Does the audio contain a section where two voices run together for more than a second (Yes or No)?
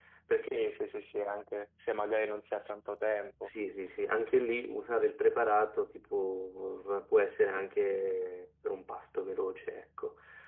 No